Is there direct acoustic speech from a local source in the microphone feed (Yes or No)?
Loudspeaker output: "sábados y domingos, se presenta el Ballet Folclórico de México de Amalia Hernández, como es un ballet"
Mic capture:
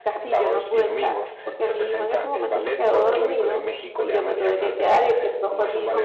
Yes